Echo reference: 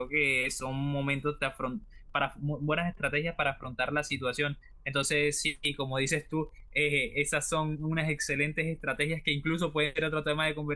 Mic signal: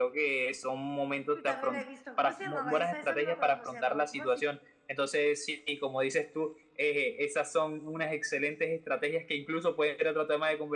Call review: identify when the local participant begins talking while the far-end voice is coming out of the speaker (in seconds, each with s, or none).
1.3 s